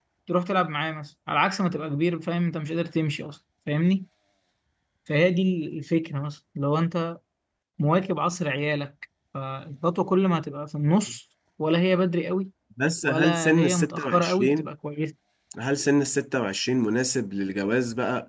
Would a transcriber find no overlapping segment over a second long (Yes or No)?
No